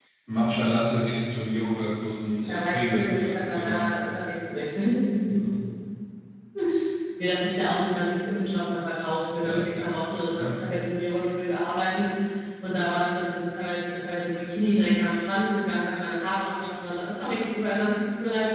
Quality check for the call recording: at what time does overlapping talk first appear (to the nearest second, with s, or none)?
2 s